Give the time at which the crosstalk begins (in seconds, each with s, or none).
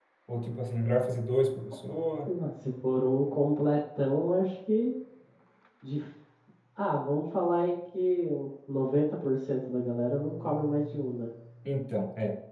none